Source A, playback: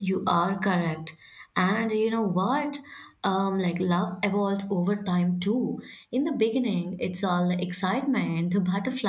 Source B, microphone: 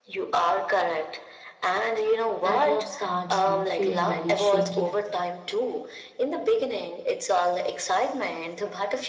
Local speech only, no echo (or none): that love starts, you know, feeling very shaky, I think.